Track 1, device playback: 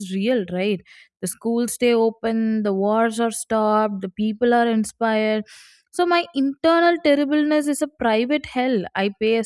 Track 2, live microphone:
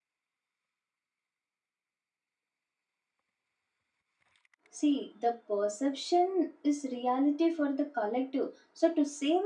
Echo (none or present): none